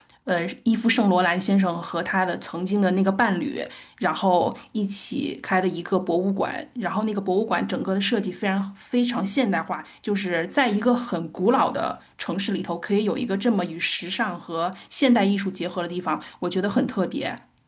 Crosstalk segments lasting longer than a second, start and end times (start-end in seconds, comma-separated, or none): none